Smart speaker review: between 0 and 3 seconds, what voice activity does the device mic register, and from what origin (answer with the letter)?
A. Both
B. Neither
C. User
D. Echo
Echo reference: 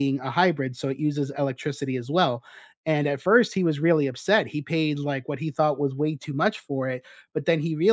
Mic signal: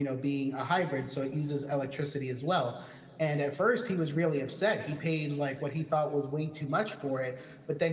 D